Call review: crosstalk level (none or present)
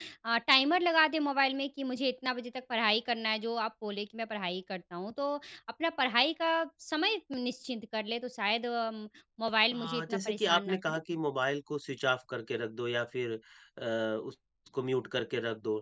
present